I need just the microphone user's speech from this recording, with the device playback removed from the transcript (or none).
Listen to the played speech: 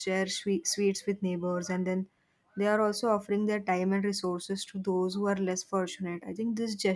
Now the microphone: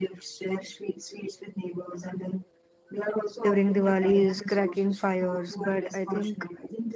during Diwali is cracking fires, but I think